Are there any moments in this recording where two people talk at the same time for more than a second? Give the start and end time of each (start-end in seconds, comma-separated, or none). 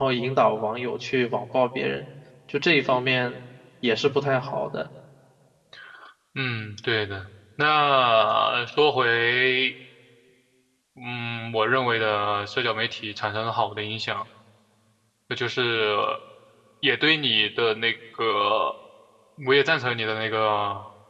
none